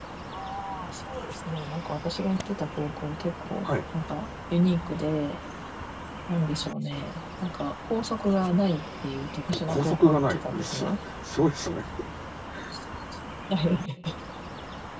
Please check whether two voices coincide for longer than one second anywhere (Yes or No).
Yes